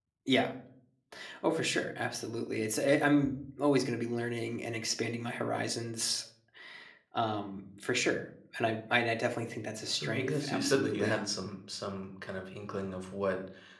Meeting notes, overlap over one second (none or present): present